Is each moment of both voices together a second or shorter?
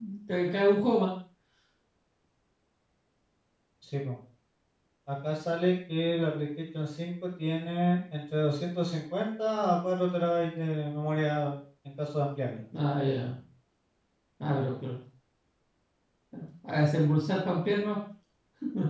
Yes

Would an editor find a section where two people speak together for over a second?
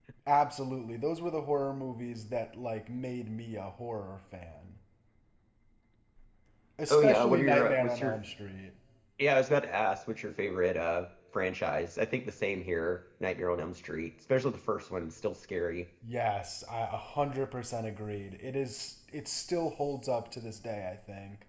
Yes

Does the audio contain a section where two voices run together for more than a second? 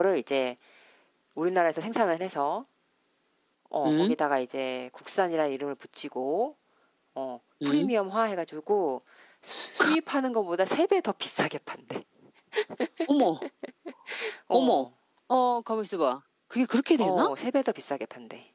No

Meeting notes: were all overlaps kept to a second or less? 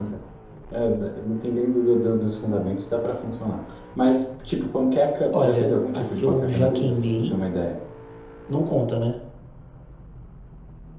No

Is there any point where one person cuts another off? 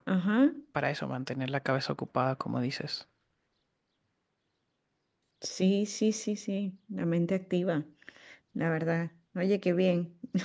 No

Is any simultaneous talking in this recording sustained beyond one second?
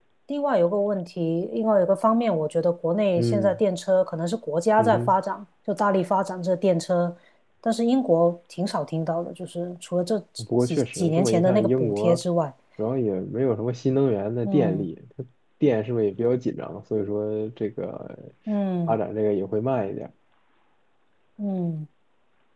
Yes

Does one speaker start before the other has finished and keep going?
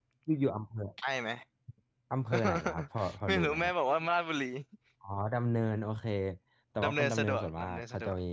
Yes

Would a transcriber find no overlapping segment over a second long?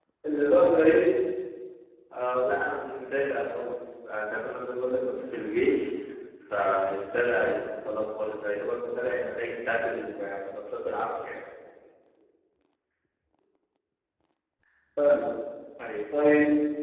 Yes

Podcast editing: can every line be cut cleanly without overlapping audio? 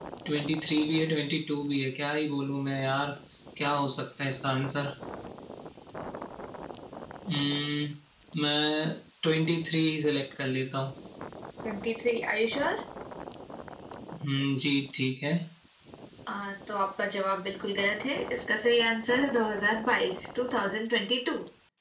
Yes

